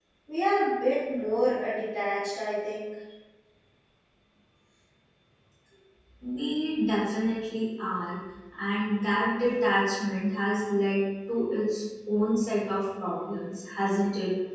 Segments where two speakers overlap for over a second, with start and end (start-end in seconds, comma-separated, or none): none